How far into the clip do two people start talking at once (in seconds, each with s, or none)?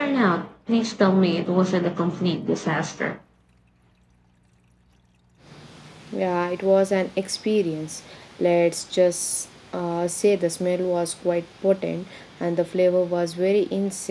none